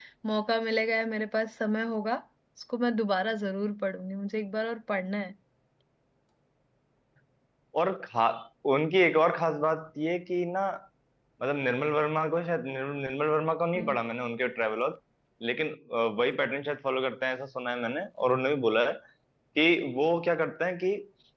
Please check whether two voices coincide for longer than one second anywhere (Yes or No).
No